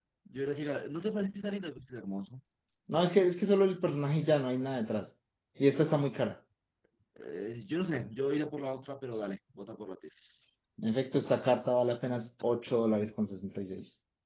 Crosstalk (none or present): none